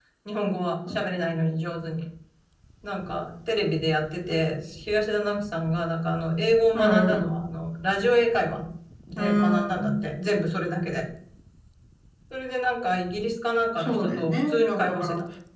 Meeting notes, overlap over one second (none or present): present